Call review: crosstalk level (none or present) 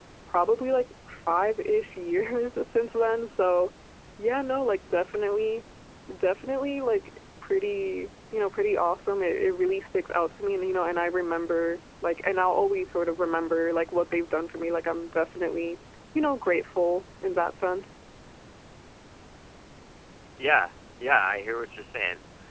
none